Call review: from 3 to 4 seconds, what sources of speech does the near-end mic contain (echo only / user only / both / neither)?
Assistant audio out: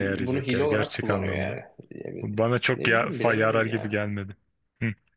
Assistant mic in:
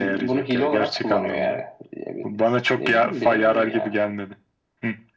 echo only